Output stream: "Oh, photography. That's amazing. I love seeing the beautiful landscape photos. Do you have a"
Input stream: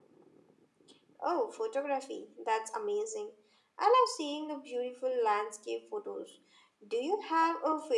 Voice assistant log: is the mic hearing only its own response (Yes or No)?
Yes